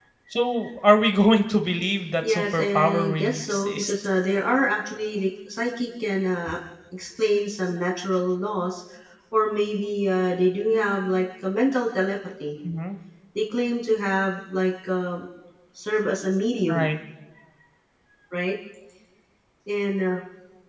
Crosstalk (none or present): present